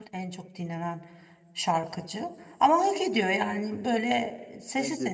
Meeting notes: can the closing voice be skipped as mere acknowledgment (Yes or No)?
Yes